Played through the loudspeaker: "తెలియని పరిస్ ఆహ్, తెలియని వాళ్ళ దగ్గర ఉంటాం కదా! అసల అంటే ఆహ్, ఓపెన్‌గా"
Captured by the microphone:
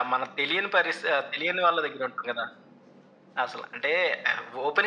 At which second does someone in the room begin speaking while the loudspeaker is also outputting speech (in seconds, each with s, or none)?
none